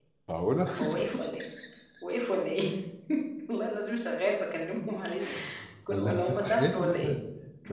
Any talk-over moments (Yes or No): Yes